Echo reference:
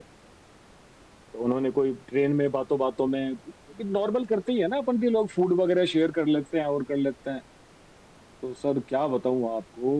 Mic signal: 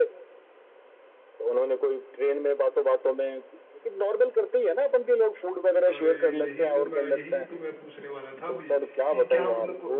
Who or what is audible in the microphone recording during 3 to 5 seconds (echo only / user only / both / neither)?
echo only